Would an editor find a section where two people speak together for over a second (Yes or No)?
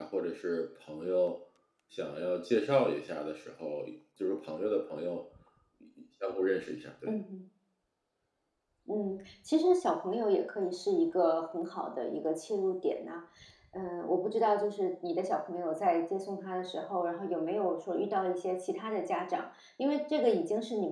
No